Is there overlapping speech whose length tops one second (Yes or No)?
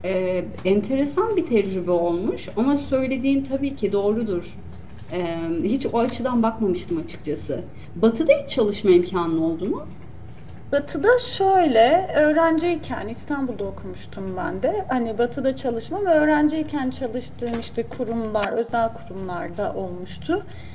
No